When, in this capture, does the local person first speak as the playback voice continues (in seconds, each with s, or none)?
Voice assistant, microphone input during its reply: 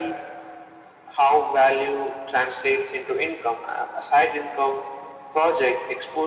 none